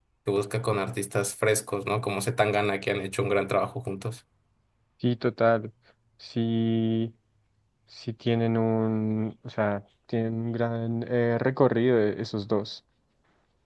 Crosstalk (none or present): none